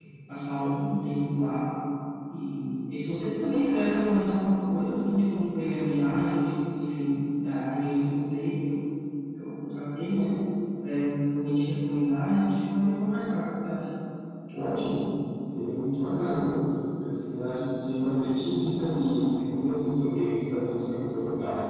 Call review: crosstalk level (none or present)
none